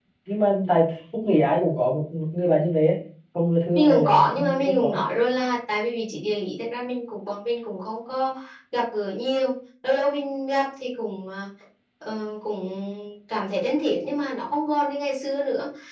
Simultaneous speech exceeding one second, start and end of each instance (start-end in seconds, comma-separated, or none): 3.8-5.0